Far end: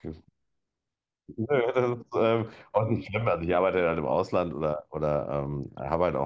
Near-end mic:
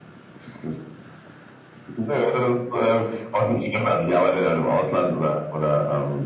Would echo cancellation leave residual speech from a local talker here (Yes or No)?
No